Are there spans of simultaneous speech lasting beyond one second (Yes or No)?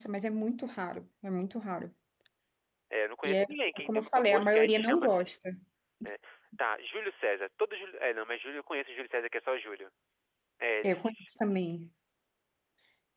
Yes